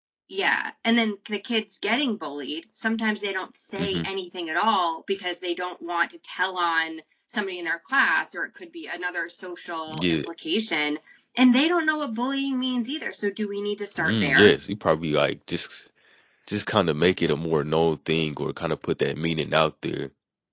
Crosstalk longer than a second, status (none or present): none